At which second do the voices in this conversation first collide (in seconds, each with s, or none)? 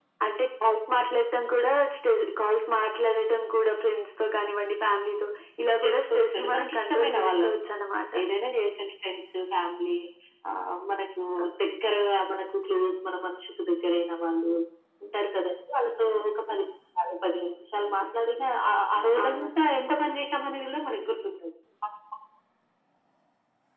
5.8 s